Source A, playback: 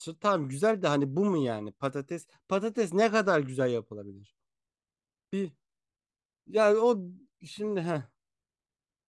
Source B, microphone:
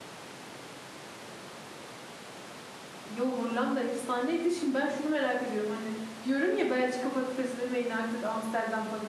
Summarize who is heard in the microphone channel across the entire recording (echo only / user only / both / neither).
user only